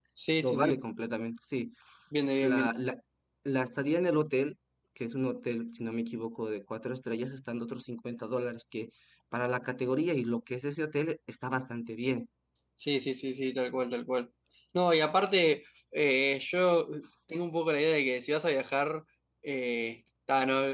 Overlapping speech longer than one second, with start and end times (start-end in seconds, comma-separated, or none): none